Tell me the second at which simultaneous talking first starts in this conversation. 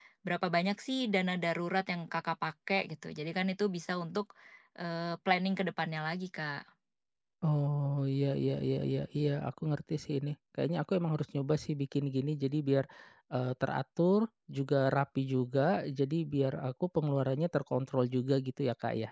none

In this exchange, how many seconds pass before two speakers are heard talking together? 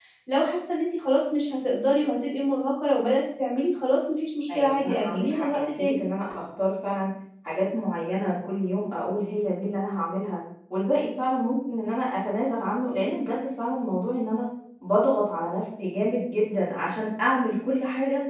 4.5 s

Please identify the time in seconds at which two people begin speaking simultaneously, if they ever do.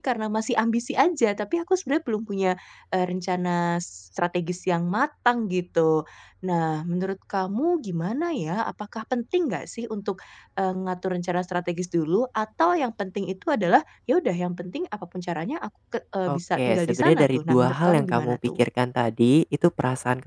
16.3 s

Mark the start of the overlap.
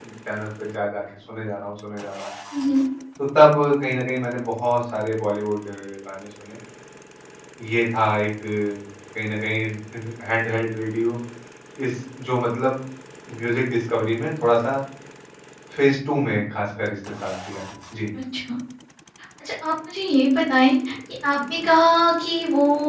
none

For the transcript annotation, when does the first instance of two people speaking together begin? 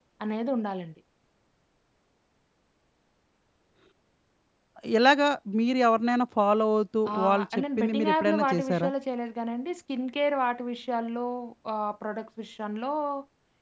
7.1 s

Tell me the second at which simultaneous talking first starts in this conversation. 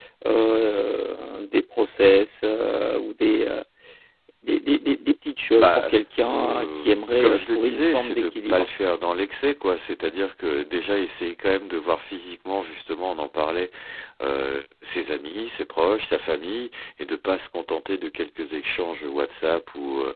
5.6 s

